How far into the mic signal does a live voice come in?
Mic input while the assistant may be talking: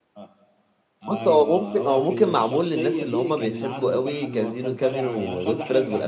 1.1 s

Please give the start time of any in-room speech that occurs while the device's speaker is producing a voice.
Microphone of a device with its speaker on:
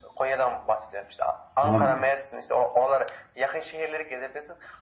1.6 s

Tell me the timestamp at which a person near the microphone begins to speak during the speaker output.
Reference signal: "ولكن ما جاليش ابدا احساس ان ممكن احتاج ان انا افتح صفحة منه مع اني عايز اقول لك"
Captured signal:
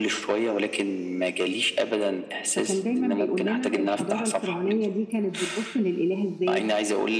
2.5 s

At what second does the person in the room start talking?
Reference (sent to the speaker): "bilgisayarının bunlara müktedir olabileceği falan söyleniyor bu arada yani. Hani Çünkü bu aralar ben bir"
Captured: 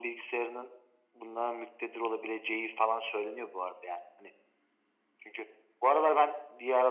none

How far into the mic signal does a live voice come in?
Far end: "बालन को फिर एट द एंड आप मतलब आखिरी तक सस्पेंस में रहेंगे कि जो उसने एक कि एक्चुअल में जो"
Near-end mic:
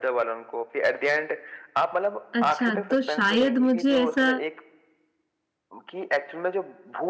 2.3 s

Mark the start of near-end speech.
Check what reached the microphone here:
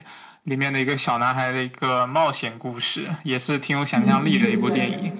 3.9 s

